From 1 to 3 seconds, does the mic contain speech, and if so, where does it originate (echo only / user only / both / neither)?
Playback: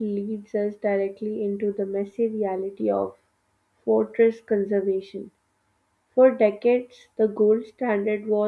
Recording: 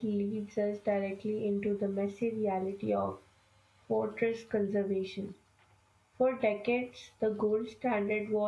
echo only